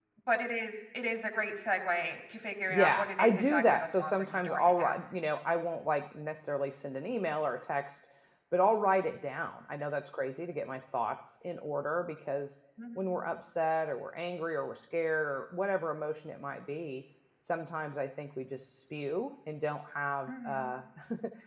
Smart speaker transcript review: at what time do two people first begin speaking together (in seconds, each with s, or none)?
2.7 s